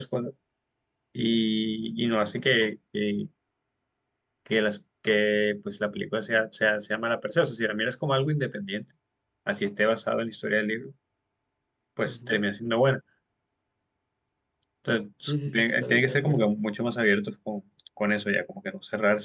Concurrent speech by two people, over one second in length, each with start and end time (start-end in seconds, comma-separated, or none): 15.3-16.5